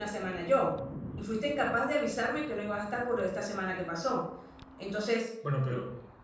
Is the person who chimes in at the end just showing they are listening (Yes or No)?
Yes